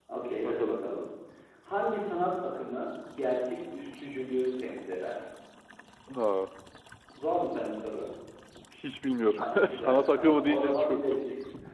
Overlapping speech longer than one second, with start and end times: 9.4-11.2

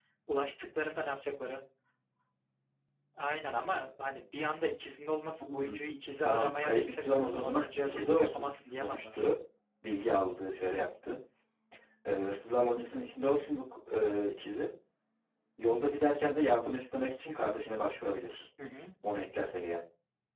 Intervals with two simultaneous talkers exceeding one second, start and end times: 6.2-9.1

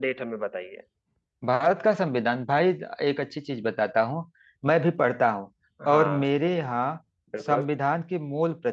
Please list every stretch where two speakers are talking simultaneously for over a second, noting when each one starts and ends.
none

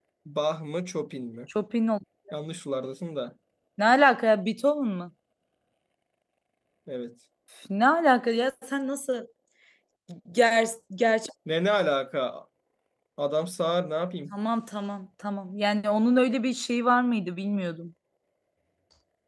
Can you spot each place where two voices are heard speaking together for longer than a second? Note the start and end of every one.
none

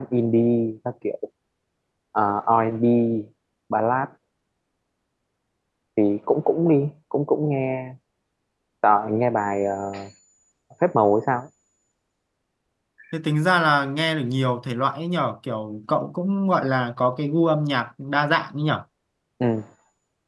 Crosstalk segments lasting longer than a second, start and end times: none

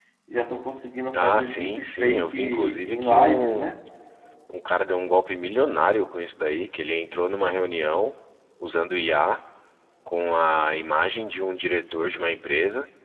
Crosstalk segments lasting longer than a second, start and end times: 1.1-3.7

